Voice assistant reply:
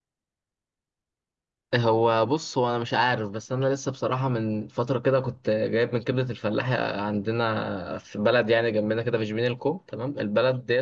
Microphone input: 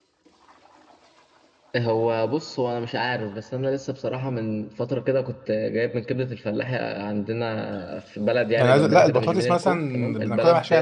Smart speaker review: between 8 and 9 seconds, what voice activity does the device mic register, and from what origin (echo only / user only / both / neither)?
both